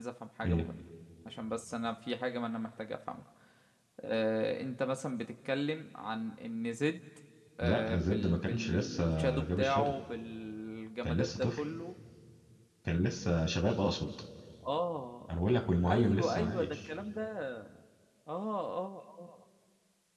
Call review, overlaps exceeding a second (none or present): present